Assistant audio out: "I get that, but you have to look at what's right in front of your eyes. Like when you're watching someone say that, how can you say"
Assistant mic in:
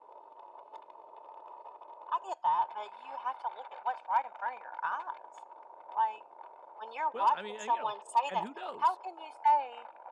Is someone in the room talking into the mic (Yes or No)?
Yes